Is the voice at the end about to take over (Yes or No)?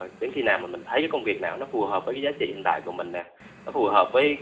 No